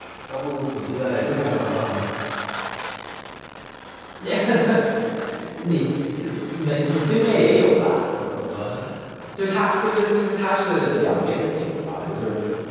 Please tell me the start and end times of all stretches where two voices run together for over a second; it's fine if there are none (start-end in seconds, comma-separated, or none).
none